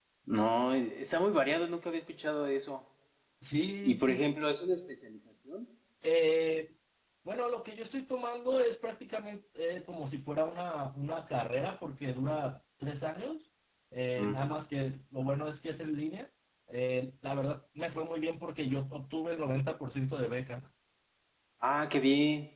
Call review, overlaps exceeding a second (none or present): none